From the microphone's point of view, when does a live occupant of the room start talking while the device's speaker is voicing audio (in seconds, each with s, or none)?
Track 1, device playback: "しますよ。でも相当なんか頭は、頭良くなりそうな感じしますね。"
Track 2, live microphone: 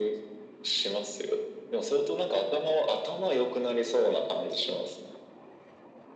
none